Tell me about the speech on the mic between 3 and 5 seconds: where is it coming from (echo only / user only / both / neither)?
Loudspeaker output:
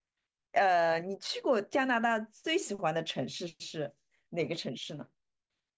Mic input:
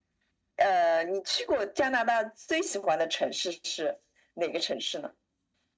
echo only